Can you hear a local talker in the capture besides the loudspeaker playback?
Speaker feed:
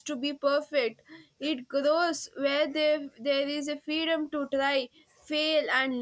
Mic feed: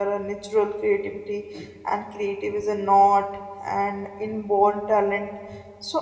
Yes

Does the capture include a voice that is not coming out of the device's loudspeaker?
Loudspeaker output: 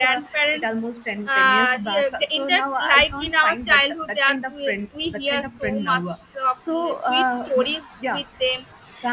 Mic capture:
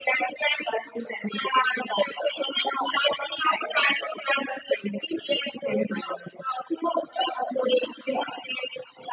No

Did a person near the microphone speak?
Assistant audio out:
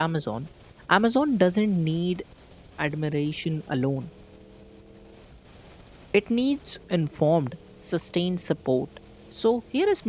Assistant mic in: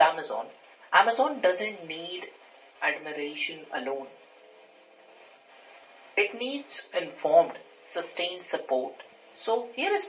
No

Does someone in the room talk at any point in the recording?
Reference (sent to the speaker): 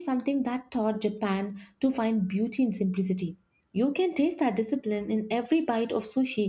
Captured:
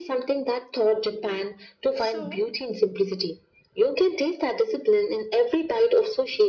Yes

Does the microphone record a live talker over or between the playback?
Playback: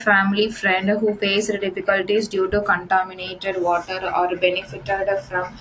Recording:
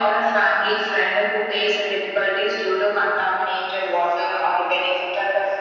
No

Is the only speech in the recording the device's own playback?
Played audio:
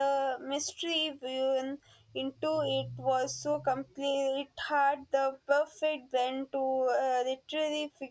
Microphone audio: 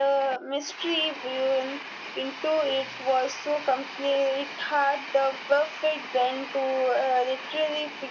Yes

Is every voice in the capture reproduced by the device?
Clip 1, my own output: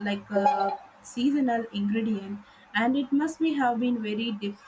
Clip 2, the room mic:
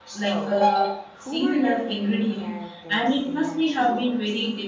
No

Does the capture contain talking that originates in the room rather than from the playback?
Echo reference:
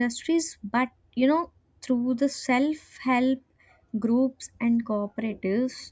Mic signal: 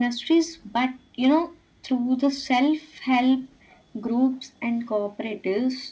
No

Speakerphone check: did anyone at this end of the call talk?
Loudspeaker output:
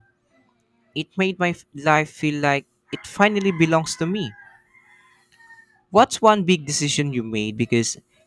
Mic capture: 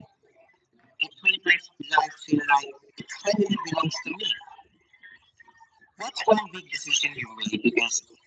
No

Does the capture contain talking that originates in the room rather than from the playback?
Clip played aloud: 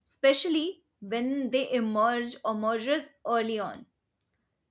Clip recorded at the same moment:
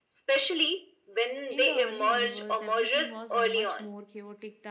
Yes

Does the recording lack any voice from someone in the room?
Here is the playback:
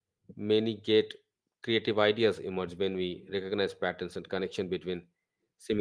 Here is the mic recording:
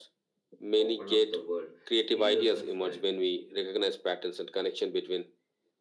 No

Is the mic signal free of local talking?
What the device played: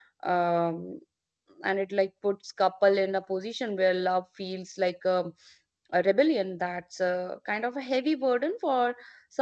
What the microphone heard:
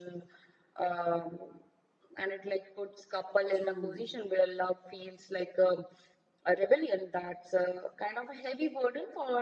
No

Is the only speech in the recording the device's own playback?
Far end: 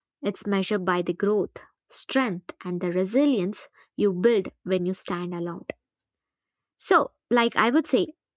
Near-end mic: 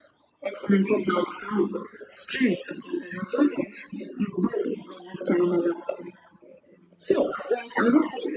Yes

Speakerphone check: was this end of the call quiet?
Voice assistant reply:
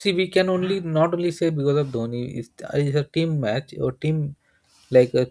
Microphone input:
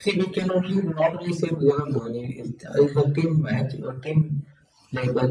Yes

